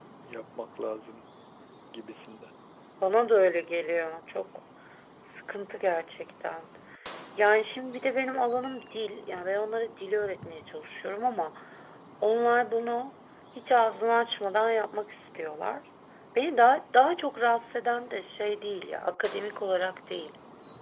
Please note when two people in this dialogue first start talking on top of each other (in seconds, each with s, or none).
none